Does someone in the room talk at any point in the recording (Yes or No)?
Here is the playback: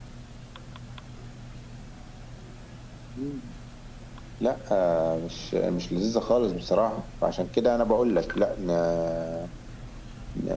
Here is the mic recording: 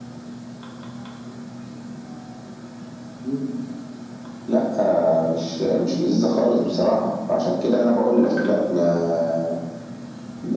No